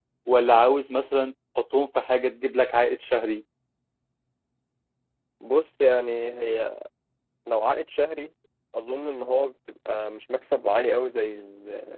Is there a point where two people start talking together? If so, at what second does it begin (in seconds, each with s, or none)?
none